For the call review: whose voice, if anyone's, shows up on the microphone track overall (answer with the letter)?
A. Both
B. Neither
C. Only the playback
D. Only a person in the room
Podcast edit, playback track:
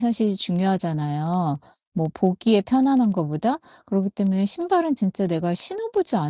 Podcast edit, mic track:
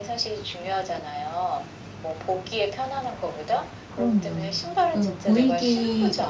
A